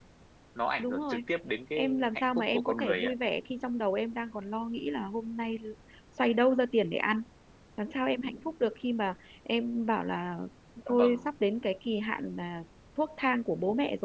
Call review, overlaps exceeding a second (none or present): present